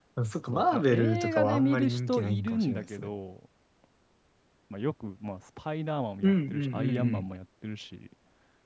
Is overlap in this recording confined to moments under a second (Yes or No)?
No